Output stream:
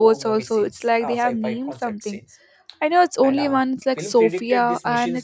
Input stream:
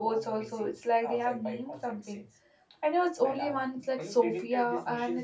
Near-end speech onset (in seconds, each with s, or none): none